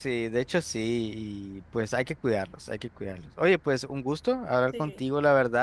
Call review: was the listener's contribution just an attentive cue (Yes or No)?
Yes